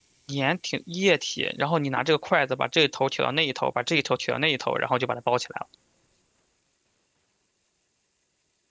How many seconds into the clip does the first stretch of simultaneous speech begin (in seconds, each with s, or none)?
none